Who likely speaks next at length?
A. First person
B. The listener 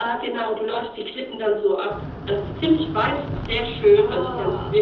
A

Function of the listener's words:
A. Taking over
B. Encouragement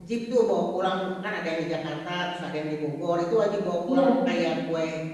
B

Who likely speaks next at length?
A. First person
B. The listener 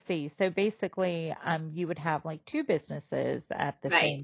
B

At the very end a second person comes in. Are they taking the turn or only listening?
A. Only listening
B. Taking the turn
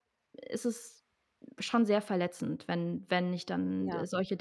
A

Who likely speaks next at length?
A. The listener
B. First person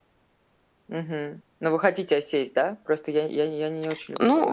A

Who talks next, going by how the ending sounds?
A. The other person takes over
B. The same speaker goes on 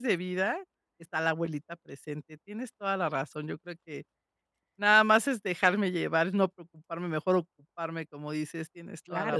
A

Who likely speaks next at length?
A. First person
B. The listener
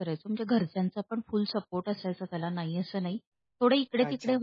A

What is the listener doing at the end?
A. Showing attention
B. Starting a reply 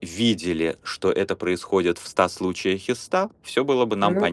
A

